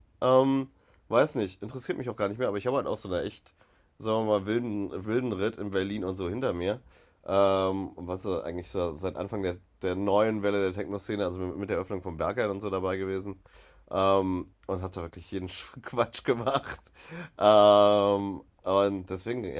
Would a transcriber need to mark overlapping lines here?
No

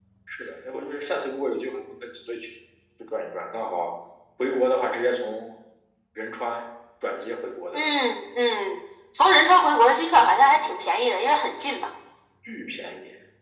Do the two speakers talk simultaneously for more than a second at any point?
No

